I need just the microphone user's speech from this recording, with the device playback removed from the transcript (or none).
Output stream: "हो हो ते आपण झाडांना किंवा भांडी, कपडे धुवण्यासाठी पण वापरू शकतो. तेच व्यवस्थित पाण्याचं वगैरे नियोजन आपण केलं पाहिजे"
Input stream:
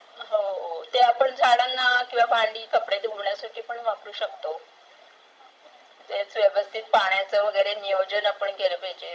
none